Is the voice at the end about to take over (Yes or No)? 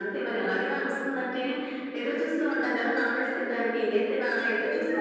Yes